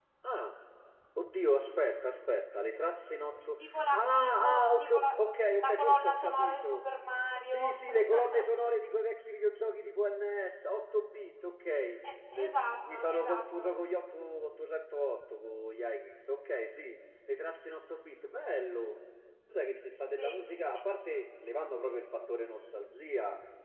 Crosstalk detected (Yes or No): Yes